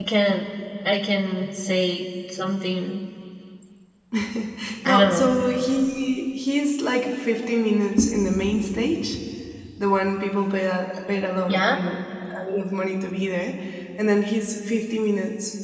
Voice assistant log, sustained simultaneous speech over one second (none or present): none